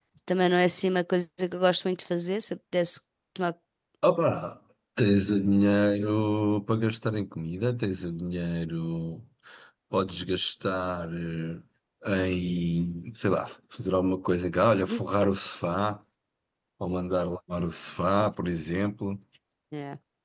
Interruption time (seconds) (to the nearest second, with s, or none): none